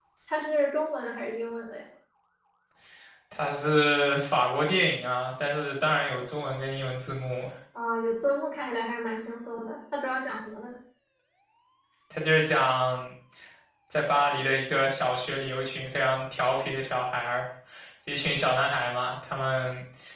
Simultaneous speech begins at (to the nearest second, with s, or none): none